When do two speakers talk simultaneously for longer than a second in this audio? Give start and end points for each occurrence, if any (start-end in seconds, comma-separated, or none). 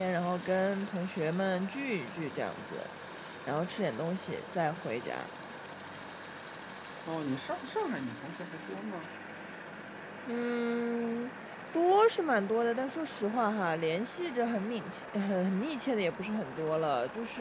none